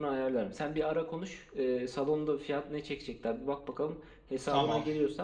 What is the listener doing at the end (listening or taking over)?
listening